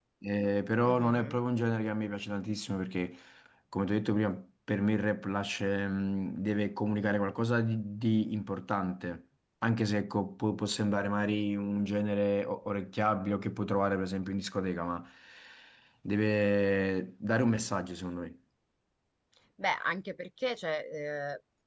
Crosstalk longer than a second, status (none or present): none